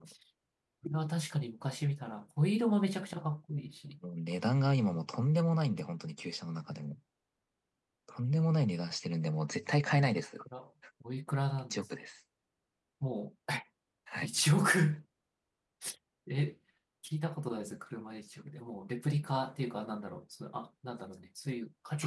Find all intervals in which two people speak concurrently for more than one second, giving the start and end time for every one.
none

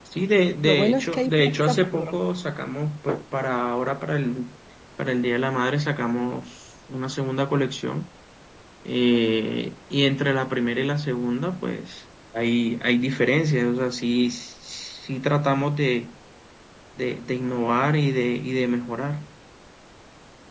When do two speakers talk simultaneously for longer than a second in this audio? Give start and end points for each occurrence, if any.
0.6-2.2

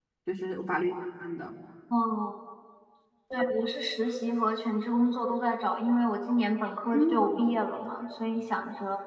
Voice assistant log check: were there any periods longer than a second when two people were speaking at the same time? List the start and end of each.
none

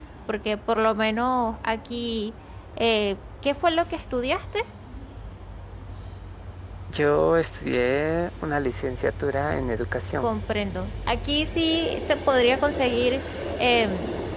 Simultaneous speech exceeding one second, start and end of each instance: none

